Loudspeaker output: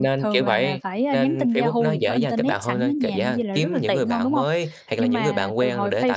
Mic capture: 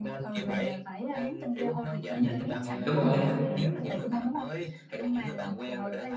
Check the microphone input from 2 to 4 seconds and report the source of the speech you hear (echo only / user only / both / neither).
both